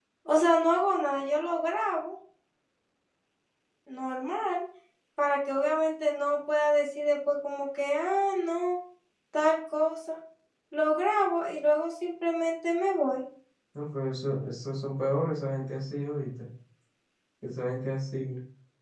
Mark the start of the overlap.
none

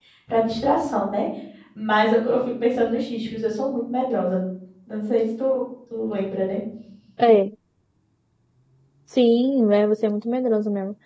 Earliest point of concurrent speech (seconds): none

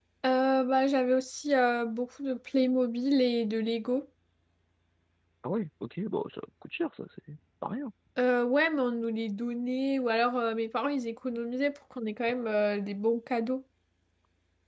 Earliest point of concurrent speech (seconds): none

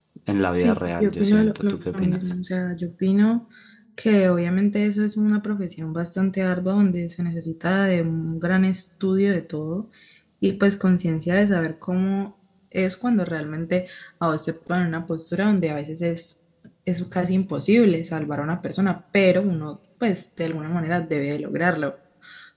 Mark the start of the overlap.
0.5 s

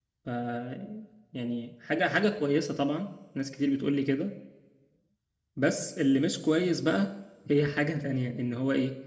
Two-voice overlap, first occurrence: none

